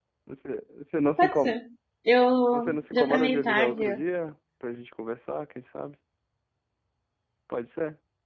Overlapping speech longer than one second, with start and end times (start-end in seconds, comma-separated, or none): 2.5-3.8